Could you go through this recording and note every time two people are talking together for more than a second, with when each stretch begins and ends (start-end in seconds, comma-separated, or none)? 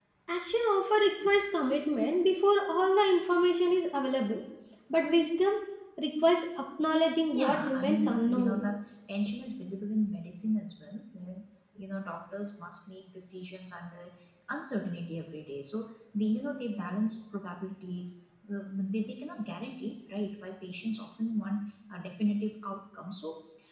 7.3-8.7